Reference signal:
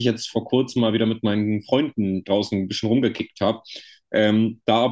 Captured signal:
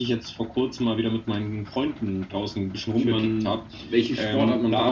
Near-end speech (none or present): present